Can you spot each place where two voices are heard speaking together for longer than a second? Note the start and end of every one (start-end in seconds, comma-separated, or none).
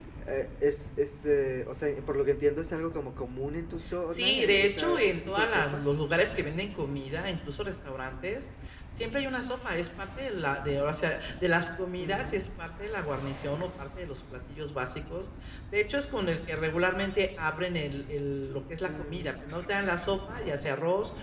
4.2-5.8